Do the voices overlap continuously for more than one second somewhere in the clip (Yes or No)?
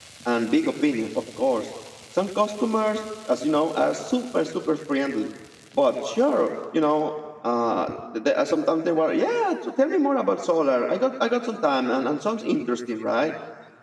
No